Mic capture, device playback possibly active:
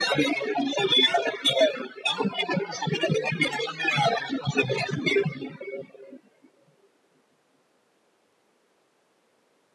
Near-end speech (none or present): none